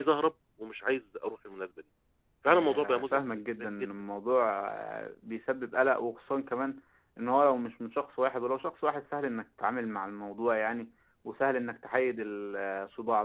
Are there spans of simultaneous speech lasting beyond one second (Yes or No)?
Yes